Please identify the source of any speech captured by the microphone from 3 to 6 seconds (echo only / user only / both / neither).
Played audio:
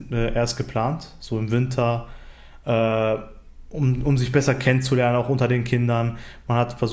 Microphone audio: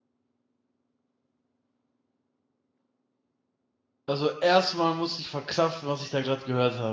user only